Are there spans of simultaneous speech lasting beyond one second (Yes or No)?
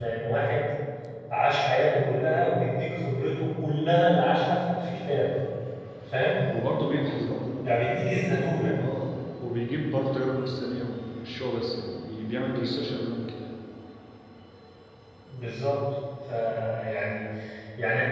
No